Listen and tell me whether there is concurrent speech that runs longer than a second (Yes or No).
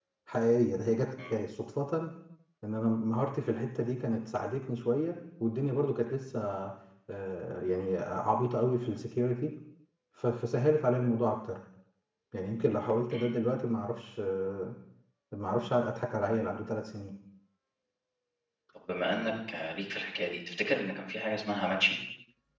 No